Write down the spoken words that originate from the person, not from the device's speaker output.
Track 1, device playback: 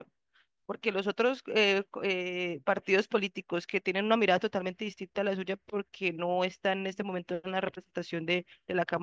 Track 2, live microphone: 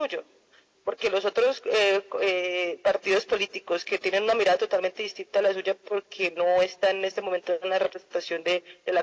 none

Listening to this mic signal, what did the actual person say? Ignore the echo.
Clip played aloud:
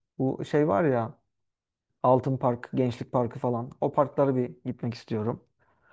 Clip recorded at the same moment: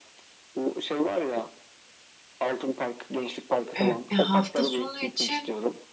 evet. E, hafta sonu için

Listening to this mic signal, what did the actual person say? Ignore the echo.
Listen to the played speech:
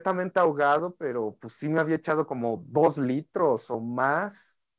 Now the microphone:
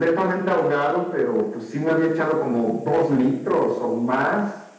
none

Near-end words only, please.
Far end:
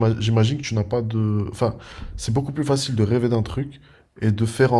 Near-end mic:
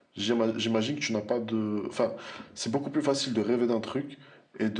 none

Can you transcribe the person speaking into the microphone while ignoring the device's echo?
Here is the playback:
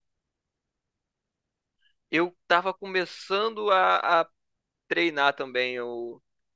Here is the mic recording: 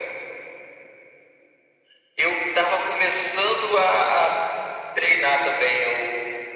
none

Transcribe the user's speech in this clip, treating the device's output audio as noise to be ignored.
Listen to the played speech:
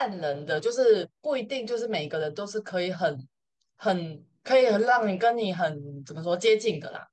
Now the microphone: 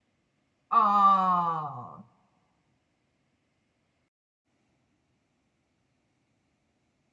哦，

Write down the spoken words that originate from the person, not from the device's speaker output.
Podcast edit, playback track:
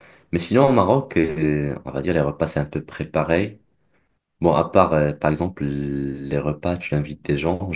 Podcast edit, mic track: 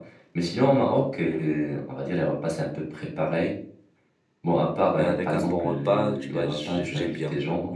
mais avec un bon repas, tu vois, j'ai- j'aime bien.

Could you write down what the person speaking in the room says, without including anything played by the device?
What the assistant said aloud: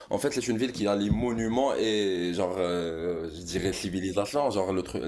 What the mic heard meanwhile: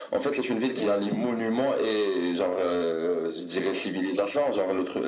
euh,

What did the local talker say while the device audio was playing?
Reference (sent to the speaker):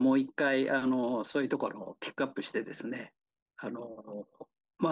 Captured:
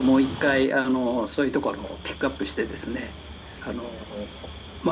none

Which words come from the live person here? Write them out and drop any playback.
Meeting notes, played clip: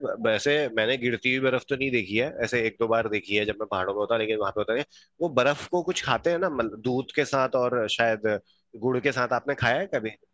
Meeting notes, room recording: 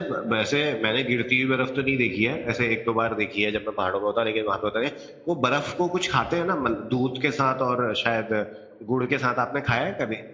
none

